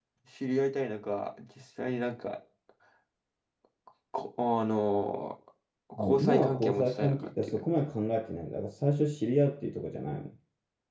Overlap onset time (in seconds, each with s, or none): 6.0 s